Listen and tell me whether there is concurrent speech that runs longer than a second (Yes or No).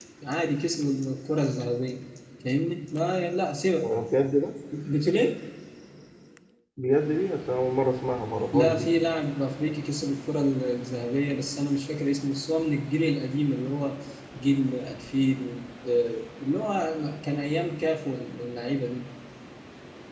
No